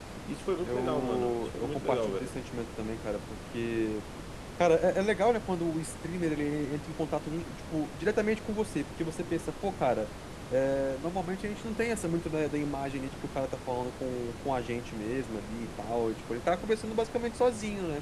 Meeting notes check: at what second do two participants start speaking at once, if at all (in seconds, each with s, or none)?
0.6 s